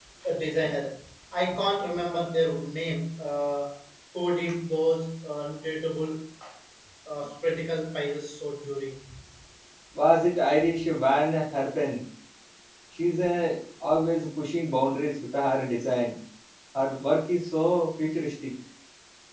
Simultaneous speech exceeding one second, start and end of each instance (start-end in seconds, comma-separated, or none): none